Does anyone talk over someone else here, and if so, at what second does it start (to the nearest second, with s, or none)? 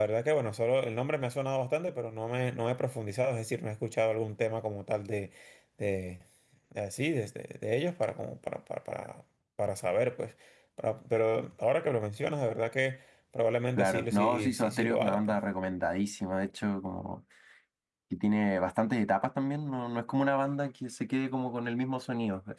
14 s